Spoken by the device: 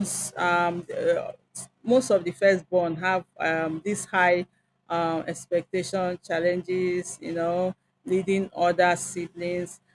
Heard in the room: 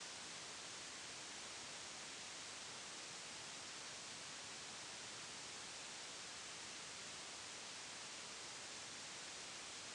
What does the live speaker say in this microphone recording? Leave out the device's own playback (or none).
none